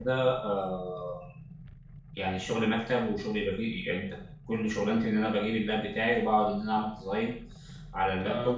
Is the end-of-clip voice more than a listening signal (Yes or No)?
No